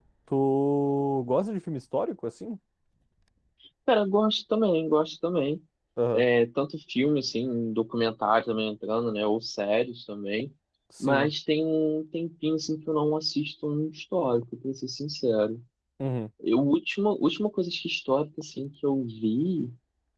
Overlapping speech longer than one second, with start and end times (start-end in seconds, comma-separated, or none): none